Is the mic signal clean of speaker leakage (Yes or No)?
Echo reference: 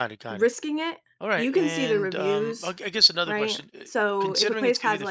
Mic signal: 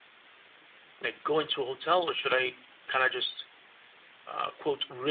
Yes